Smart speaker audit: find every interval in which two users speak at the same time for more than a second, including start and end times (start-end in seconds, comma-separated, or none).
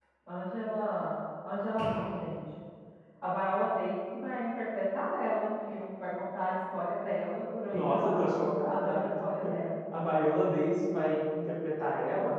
7.7-9.1